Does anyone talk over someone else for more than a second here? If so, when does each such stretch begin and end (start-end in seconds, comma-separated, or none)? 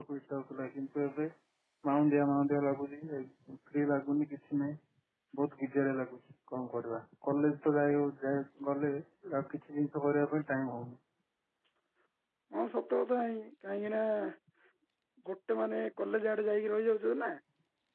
none